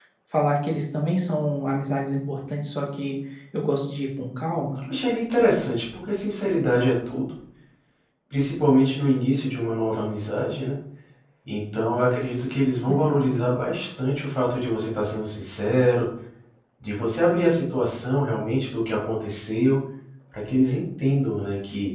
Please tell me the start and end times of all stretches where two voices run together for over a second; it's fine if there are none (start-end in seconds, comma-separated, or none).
none